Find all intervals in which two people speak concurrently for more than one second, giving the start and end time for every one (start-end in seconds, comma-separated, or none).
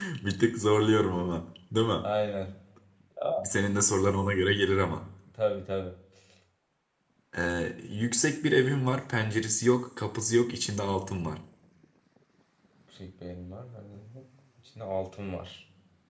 none